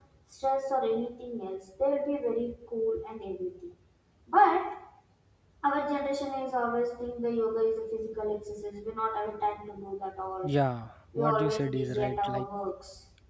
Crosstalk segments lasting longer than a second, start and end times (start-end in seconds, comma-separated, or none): 11.2-12.5